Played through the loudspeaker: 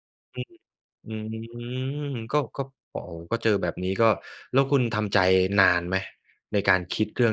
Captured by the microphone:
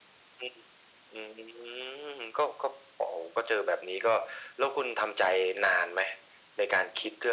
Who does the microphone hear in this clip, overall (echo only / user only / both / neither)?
echo only